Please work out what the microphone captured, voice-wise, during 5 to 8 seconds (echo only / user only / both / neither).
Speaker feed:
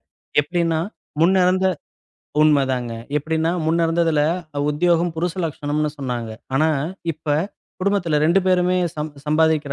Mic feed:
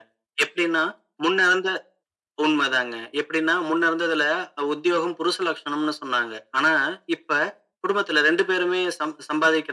echo only